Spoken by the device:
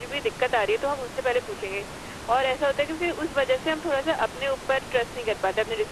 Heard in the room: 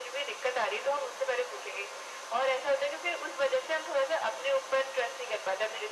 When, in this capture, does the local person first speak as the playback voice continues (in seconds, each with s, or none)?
none